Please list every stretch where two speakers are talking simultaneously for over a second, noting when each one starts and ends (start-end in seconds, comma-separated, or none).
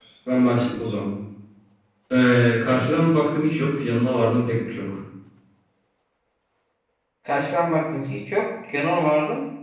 none